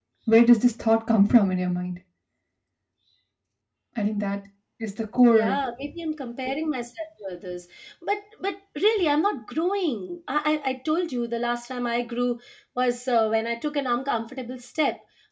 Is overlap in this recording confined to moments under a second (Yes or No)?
Yes